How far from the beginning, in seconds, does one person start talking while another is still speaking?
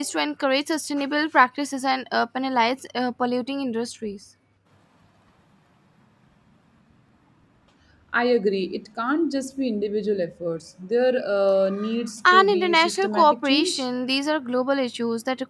12.2 s

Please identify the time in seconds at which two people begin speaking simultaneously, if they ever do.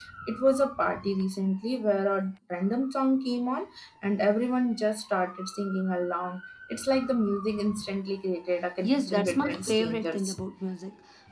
8.8 s

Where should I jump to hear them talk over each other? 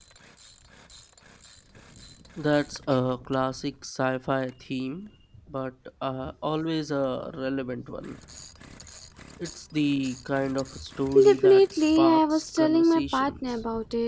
11.2 s

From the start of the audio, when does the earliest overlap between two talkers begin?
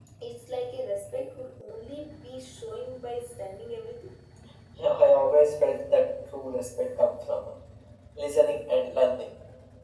none

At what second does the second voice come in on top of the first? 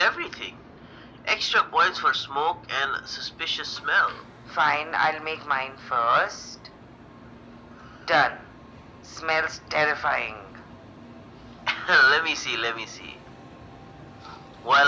none

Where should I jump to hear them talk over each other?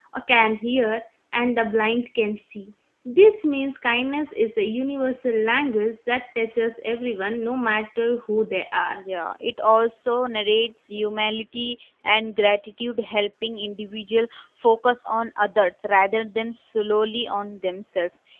none

